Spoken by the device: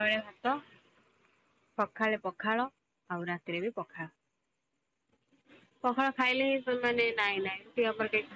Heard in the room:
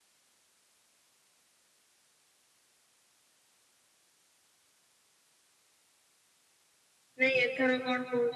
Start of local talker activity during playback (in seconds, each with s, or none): 7.2 s